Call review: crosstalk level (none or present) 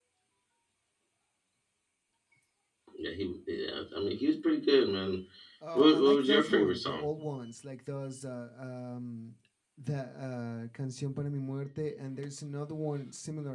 present